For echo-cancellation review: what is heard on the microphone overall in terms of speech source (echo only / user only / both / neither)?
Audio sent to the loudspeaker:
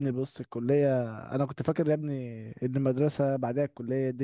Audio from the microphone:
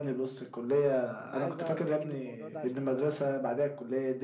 both